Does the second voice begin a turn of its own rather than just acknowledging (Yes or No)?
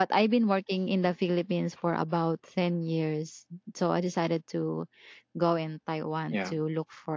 No